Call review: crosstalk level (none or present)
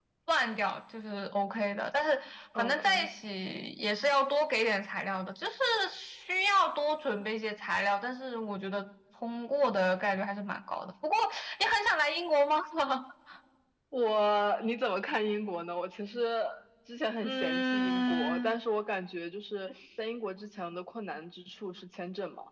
present